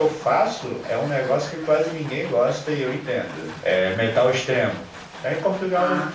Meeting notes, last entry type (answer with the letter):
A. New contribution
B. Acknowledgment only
B